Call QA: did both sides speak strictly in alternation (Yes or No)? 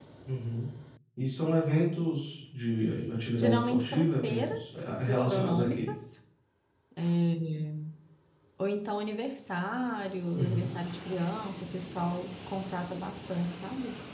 No